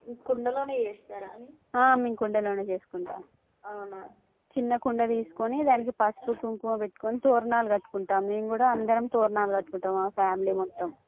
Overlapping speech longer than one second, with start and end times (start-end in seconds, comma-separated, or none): none